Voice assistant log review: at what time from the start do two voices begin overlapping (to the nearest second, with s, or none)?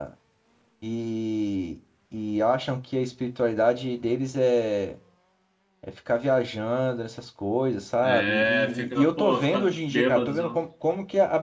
8 s